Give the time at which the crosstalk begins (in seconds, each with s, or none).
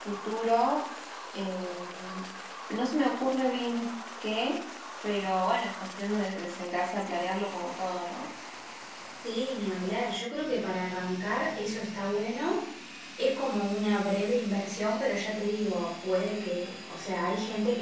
none